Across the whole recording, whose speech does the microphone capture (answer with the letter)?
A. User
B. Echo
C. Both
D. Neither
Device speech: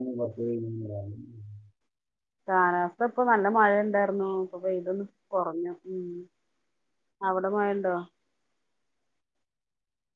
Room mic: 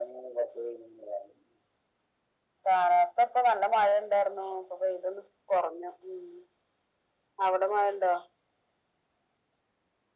B